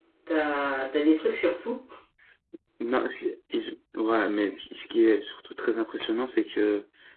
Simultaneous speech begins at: none

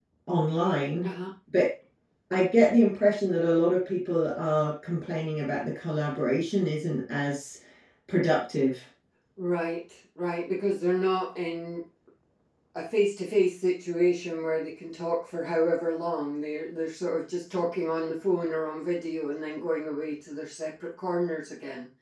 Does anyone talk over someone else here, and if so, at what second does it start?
none

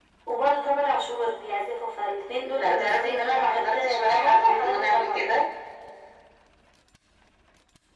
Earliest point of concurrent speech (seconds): 2.4 s

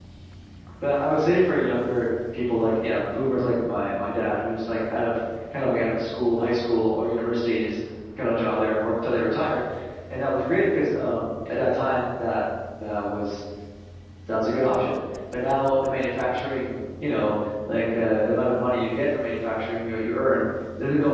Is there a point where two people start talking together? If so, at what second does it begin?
none

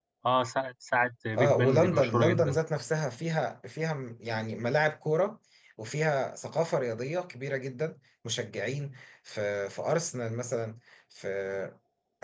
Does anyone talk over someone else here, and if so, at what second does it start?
1.3 s

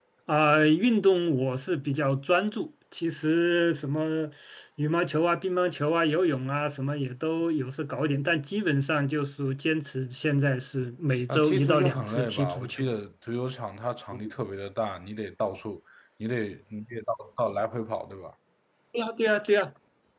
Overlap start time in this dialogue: 11.3 s

